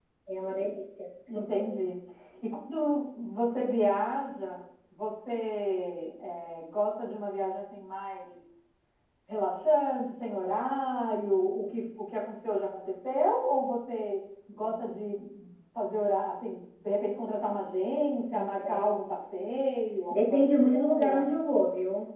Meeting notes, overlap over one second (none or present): present